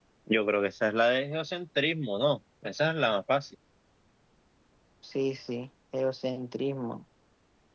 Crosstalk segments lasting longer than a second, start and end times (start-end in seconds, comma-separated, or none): none